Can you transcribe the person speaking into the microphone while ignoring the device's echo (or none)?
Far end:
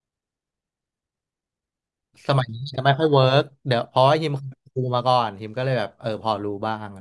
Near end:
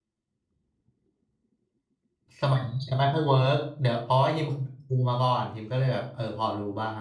none